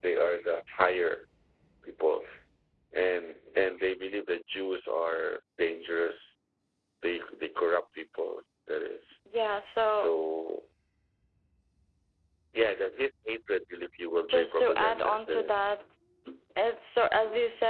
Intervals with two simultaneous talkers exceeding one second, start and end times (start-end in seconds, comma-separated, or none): 14.3-15.6